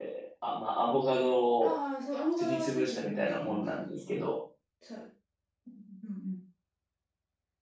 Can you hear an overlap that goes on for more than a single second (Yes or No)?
Yes